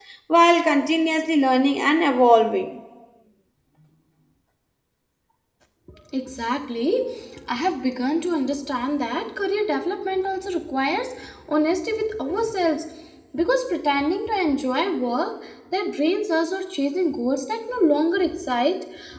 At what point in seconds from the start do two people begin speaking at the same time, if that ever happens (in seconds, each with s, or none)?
none